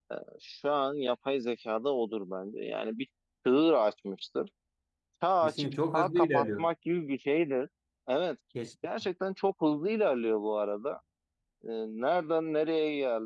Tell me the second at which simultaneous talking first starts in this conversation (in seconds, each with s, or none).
5.4 s